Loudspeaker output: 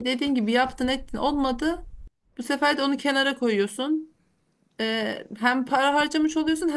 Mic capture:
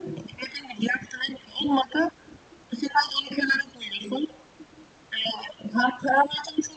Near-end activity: none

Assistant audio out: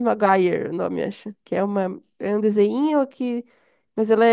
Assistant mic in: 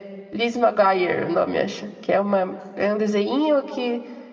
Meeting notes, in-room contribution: none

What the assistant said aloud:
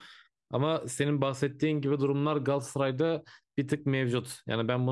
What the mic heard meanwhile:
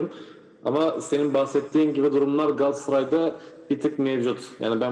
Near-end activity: none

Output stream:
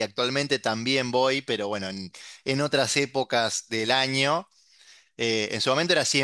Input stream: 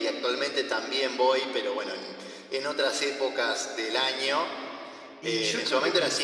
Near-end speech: present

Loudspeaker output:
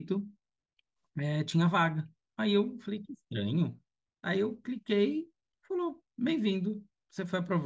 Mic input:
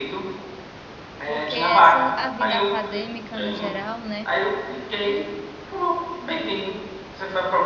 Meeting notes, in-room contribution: present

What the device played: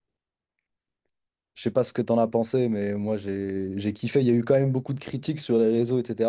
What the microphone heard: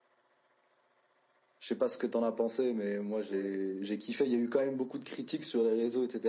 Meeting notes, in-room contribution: present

